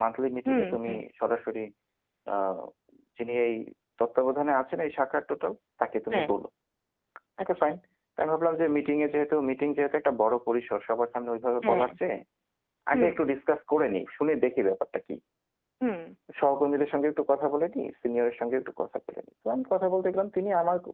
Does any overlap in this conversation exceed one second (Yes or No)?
No